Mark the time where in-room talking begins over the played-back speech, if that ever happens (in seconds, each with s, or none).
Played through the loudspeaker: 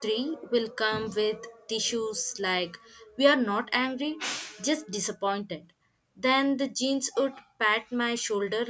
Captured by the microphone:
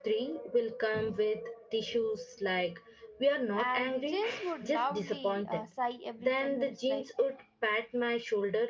3.5 s